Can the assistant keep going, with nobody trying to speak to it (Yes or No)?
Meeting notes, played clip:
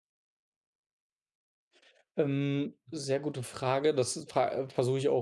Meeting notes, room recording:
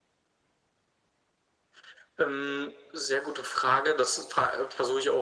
Yes